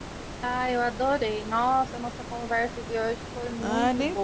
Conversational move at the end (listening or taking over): taking over